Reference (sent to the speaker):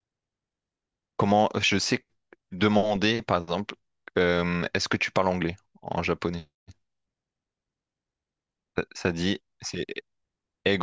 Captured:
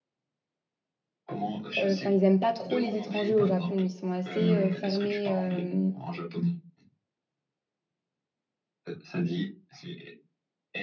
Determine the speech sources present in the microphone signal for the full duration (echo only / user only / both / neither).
both